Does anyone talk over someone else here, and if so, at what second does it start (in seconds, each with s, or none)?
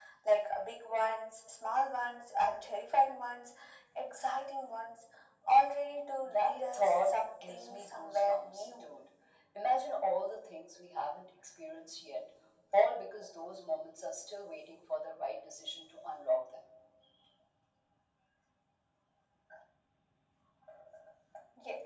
6.2 s